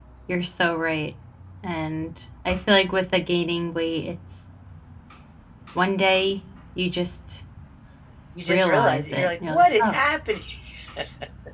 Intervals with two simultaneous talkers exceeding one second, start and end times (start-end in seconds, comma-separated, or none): 8.5-9.9